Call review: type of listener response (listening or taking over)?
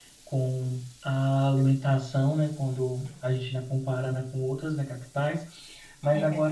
listening